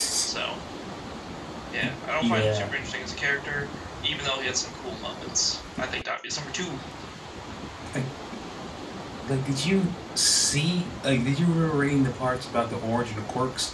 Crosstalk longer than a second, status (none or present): none